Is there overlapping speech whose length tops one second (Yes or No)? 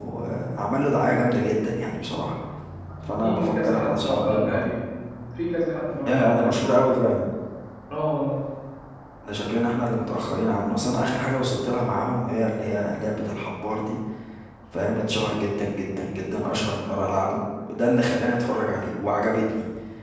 Yes